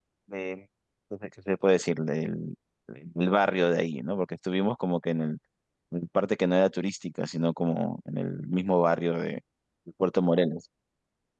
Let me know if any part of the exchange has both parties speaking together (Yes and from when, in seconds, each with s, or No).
No